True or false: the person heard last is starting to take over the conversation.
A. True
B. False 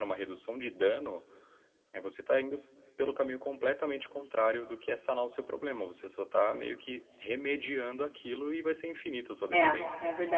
A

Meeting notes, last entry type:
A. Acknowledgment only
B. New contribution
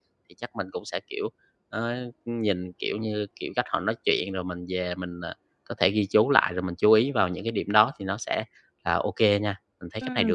B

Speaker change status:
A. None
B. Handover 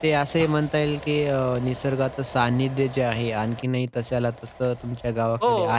B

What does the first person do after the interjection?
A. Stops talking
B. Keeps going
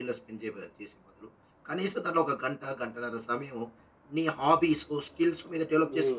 A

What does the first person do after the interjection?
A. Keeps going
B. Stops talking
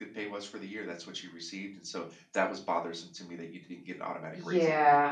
B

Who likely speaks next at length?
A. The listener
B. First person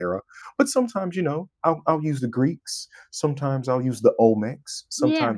B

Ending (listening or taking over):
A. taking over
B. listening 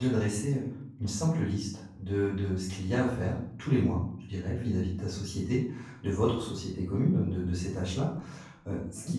B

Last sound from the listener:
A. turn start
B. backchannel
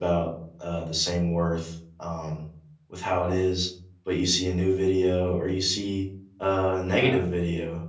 B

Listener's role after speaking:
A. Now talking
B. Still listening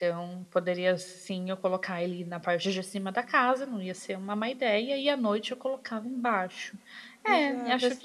A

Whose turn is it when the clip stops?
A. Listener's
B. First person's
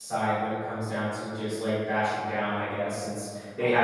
B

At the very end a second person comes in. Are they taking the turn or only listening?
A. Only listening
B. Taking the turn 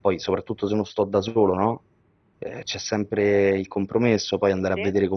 A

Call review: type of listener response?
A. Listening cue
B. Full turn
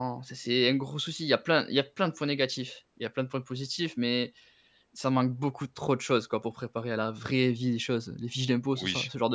B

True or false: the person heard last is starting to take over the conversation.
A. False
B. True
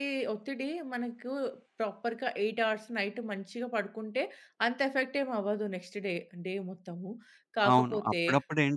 B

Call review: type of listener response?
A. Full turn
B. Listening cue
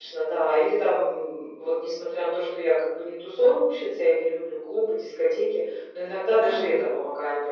B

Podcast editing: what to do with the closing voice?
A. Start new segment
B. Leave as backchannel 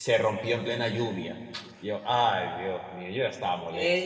A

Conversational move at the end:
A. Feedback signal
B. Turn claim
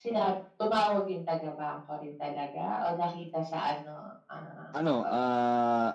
B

